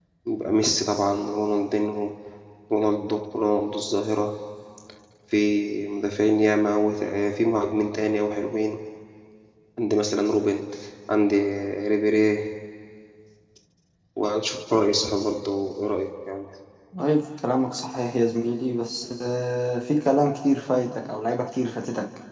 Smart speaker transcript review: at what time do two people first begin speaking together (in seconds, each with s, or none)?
none